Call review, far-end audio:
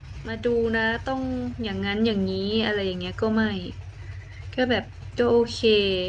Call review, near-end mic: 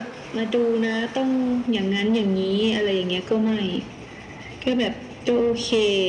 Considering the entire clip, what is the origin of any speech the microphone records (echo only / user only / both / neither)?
echo only